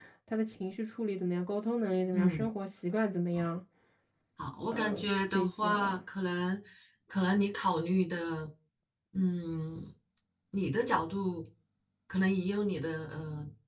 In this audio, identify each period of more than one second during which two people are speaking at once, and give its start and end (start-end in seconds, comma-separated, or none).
4.7-6.0